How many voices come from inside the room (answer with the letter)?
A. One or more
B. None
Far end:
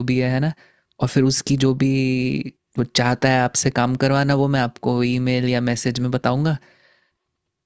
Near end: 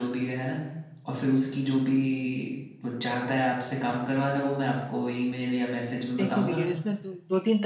A